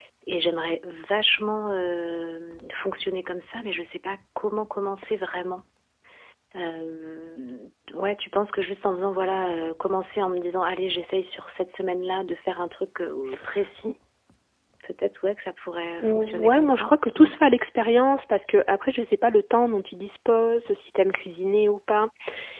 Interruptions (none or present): present